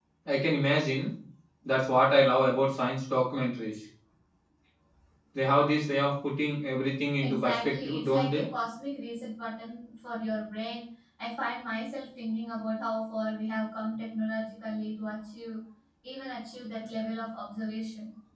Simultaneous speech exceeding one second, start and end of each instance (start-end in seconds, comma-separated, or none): 7.2-8.5